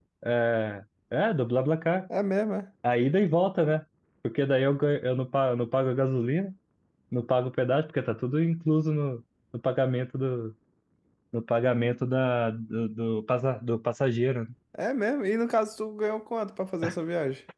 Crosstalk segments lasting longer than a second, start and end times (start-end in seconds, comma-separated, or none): none